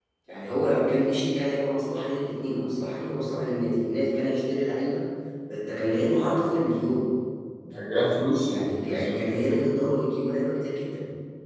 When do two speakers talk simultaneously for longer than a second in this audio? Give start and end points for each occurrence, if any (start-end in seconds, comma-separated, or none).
8.4-9.8